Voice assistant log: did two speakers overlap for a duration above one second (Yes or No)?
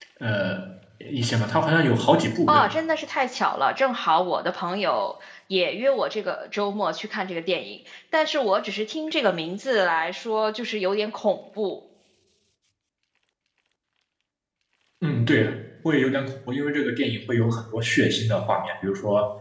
No